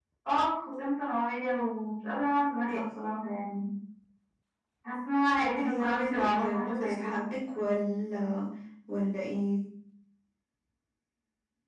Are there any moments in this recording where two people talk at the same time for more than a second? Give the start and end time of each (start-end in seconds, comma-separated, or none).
5.6-7.2